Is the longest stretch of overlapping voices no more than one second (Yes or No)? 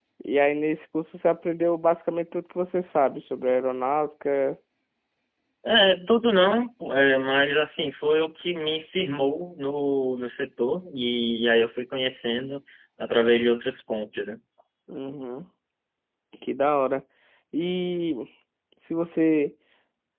Yes